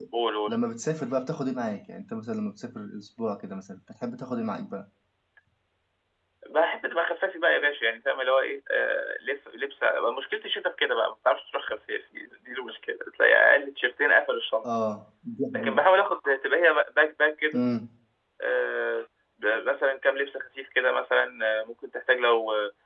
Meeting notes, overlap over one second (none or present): none